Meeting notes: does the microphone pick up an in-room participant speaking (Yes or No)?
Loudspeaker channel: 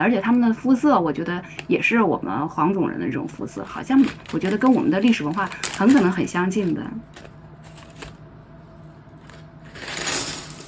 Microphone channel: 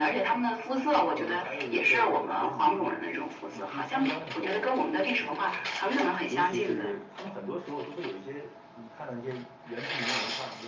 Yes